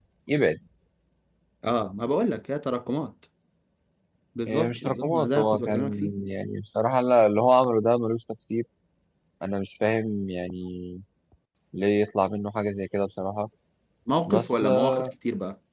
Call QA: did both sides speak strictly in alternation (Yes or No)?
No